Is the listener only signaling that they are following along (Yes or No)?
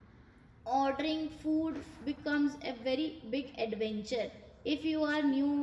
Yes